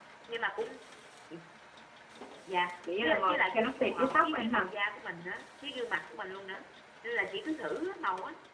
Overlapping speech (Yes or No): Yes